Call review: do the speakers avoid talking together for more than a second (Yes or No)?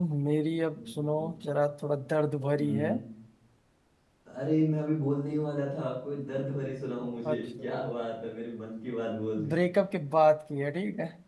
Yes